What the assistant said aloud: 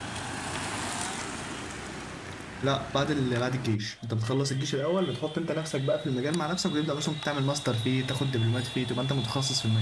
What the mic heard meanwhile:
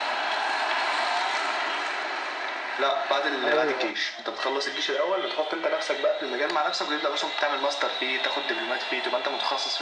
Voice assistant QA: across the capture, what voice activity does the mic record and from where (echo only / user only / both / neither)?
both